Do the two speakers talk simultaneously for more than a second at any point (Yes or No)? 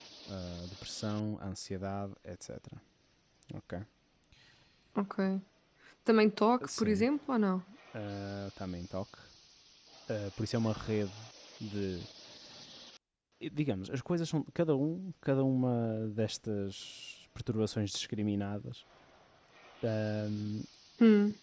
No